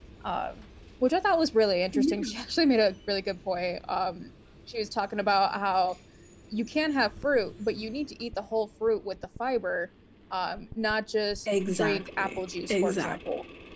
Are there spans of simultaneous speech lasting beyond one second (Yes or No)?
Yes